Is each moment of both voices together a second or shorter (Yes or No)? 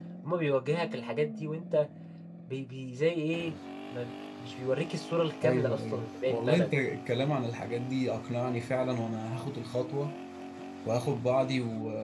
No